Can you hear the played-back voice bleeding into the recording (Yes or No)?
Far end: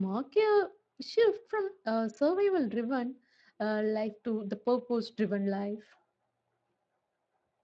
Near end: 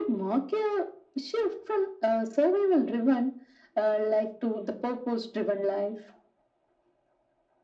Yes